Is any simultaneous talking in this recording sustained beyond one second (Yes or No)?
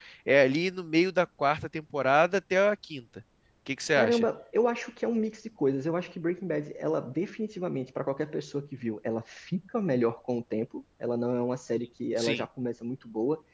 No